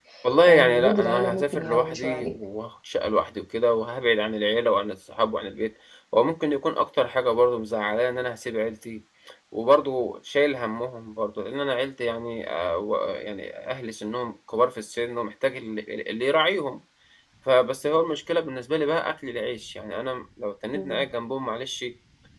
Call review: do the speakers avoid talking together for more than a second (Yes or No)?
No